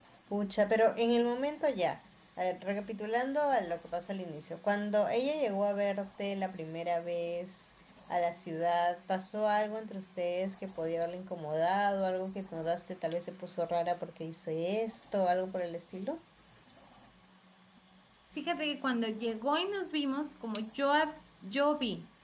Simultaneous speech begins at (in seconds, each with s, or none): none